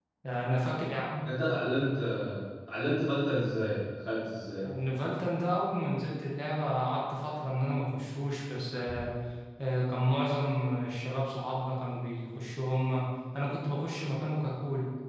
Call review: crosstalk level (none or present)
none